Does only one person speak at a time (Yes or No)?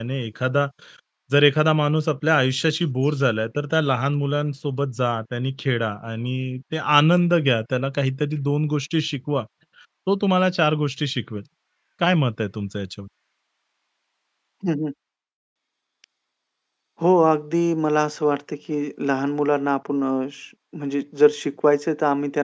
Yes